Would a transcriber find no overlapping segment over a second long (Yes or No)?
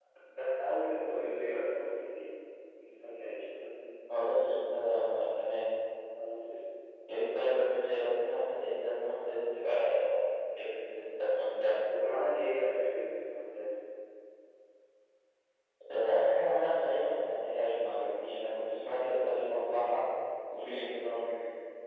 Yes